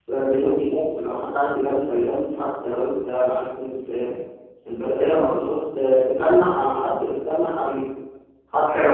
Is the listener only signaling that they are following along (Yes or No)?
No